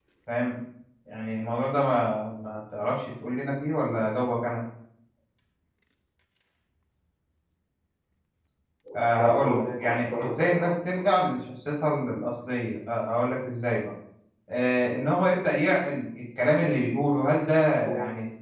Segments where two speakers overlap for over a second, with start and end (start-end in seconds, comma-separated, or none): 9.2-11.0